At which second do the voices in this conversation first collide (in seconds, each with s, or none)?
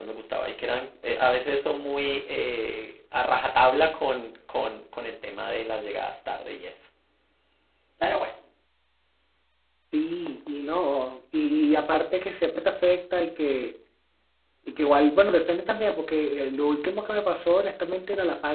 none